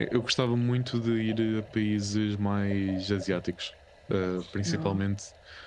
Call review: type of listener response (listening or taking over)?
listening